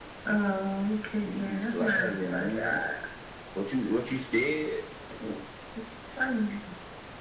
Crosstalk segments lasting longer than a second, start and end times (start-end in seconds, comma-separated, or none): 1.2-2.8